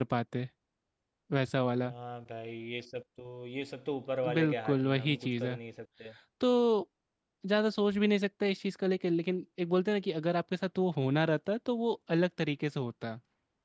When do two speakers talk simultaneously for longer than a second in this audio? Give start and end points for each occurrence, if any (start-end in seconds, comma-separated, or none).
4.3-5.6